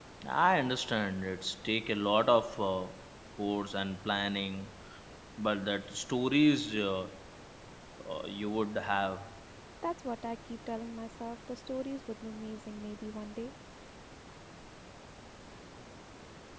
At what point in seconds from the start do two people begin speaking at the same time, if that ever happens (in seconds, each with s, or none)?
none